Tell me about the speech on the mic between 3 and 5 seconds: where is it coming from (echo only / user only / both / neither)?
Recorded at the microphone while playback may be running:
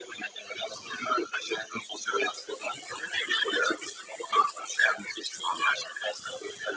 echo only